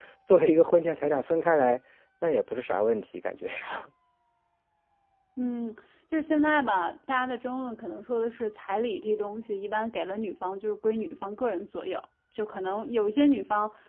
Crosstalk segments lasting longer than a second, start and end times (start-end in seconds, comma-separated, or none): none